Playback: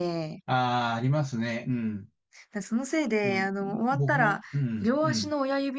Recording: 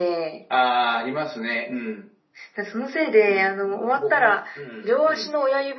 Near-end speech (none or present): none